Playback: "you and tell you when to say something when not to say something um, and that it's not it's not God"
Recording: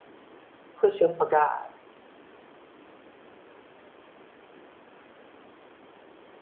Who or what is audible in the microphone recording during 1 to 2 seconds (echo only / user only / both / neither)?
user only